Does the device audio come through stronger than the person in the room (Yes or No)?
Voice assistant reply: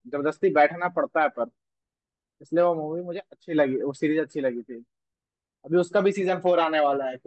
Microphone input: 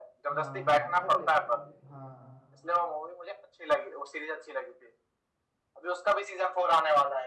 Yes